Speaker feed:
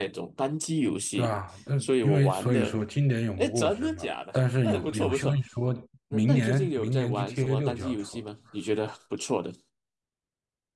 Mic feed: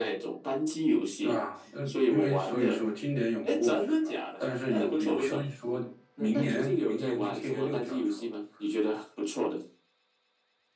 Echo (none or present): present